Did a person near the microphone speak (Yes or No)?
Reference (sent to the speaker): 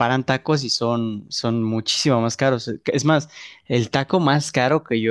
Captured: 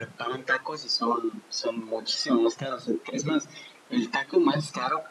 No